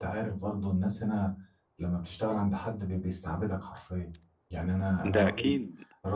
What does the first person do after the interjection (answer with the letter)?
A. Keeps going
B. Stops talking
A